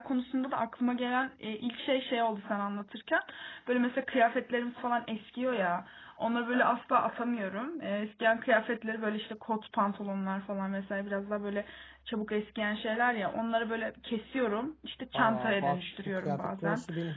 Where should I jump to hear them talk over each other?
15.1 s

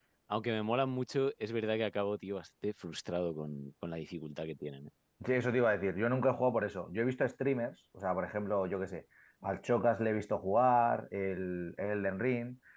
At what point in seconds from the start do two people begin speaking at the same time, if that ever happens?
none

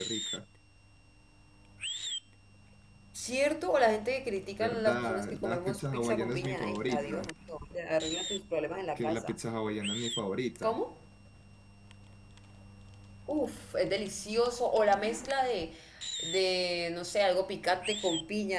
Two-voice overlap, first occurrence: 4.6 s

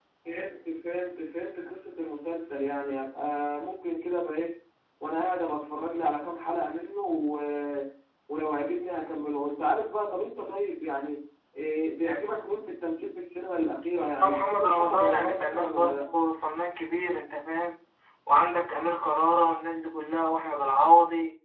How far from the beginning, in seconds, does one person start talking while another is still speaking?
14.2 s

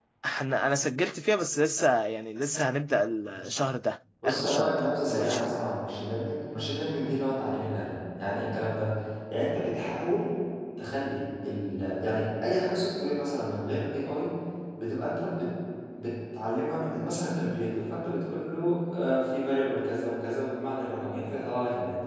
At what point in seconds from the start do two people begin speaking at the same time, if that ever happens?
4.2 s

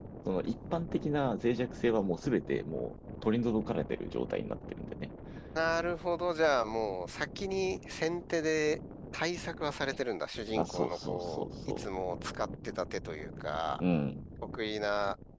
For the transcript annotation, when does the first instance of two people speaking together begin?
10.6 s

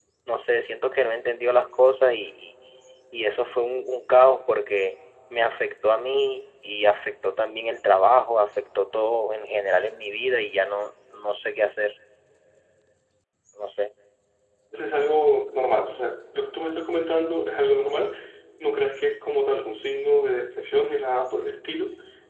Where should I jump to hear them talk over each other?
none

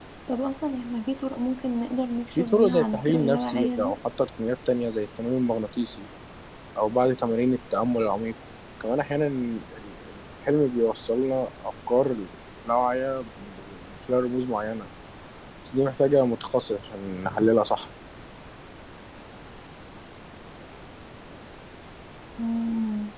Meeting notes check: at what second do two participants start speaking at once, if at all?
2.4 s

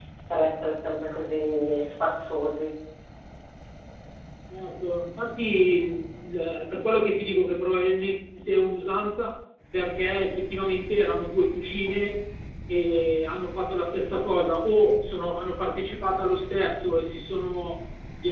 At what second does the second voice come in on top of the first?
none

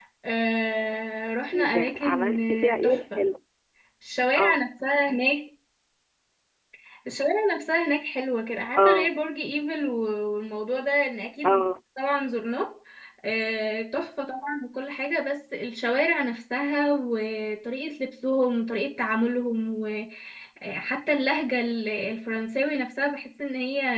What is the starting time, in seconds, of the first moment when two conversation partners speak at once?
1.5 s

